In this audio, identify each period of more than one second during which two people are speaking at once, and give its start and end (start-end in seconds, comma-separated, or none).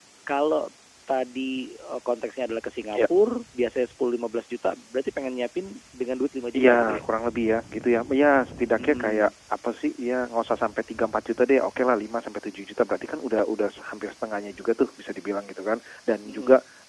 none